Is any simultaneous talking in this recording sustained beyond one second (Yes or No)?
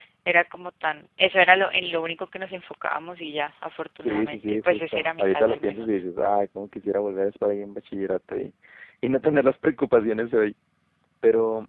Yes